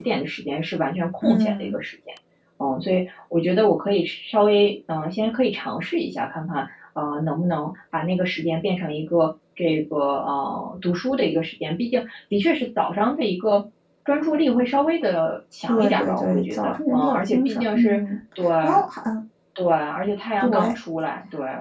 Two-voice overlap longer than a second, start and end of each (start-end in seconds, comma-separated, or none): 15.7-18.0